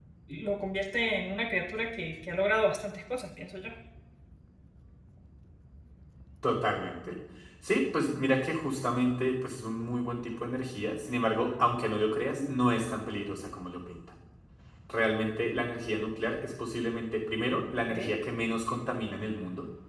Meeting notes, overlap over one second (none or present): none